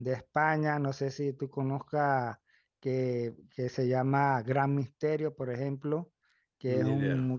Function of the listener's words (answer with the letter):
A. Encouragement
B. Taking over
A